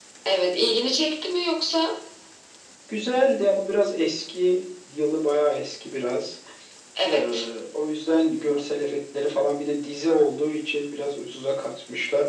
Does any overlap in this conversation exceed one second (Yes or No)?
No